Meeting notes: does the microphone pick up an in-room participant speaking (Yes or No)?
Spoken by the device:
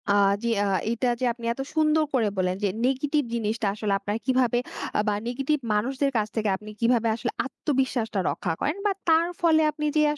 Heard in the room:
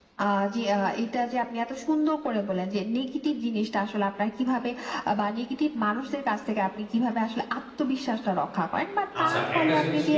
Yes